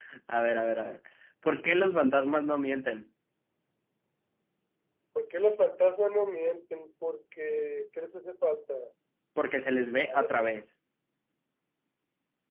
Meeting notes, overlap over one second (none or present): none